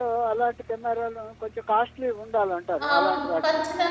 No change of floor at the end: No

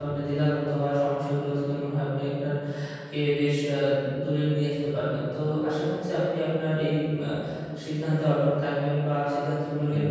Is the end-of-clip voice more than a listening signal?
No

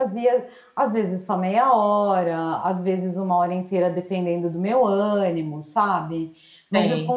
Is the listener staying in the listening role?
Yes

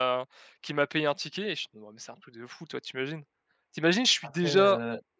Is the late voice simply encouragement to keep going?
Yes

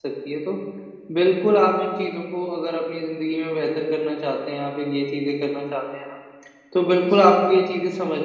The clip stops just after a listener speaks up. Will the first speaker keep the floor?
Yes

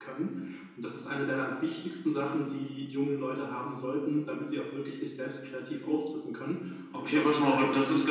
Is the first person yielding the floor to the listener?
Yes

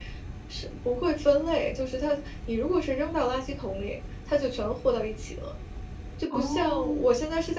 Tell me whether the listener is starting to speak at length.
No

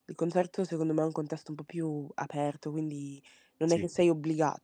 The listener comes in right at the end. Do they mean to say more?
No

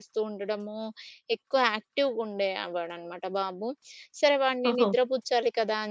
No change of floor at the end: Yes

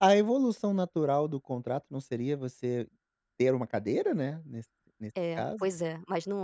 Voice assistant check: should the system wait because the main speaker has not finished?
No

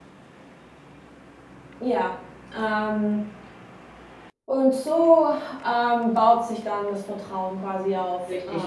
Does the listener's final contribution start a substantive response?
Yes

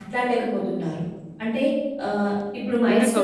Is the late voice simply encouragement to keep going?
No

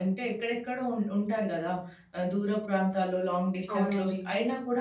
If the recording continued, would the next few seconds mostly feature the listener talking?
No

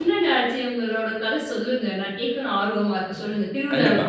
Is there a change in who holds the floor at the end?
Yes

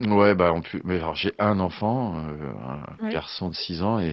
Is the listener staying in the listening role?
Yes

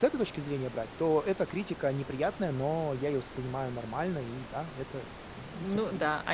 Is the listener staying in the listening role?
No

